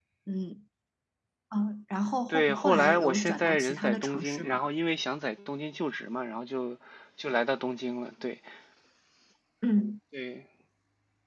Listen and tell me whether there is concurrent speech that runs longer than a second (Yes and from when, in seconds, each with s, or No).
Yes, from 2.3 s